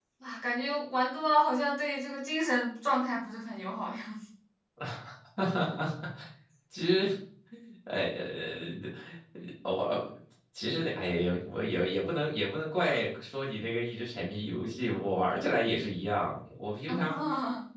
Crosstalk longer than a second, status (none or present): none